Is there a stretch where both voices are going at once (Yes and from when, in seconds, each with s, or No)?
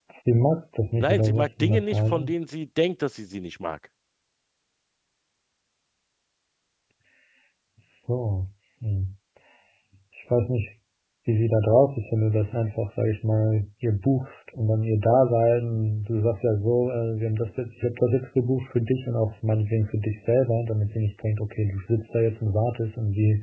Yes, from 1.0 s